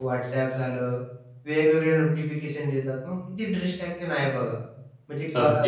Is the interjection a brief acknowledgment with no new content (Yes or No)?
No